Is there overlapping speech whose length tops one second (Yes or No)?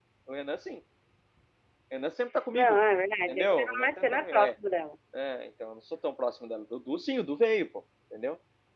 Yes